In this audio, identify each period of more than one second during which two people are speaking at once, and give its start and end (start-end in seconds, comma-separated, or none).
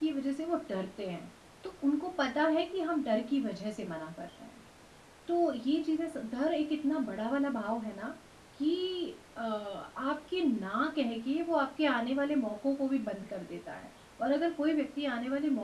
none